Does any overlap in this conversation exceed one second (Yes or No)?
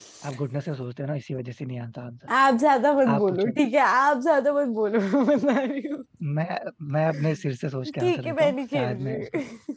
Yes